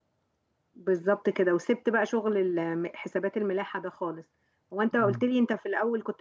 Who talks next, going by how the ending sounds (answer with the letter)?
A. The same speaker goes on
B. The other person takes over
A